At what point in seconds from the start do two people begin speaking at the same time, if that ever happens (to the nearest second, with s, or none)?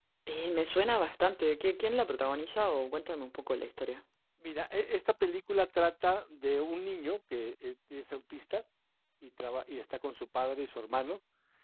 none